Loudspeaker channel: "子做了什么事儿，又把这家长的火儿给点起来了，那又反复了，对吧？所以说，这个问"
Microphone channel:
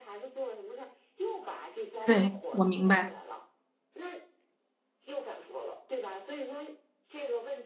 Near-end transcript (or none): 对，我明白。